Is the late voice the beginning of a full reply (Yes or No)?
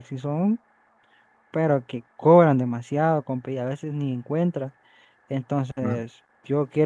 No